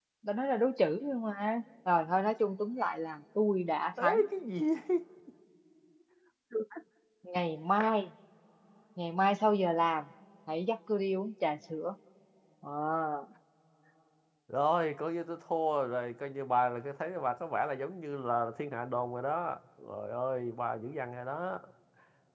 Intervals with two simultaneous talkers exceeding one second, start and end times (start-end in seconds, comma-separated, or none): none